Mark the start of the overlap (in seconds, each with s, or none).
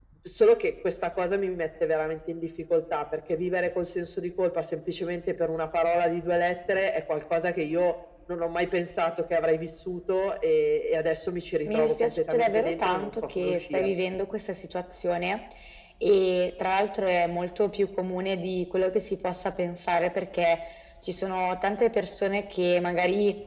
11.7 s